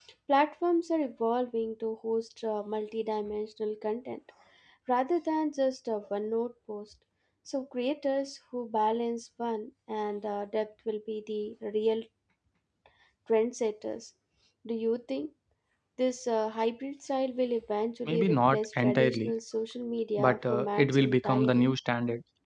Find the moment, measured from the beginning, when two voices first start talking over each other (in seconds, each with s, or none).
18.1 s